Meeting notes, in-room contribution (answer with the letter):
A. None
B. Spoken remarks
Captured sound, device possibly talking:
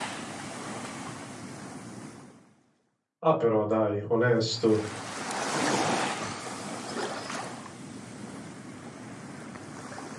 B